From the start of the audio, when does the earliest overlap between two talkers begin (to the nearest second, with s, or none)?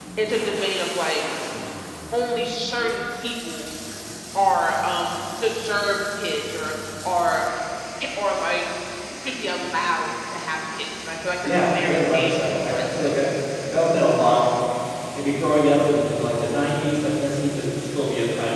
11 s